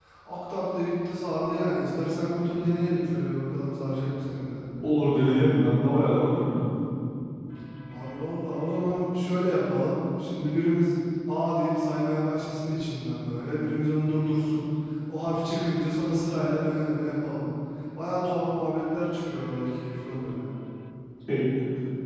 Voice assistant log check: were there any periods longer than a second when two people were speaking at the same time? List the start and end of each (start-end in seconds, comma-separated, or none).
none